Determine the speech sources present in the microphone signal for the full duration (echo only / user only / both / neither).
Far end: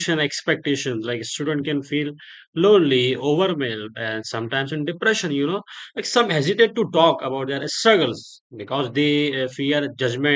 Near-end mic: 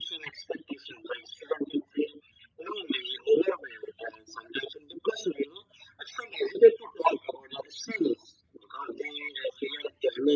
echo only